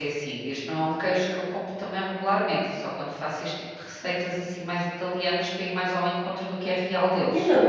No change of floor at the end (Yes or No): No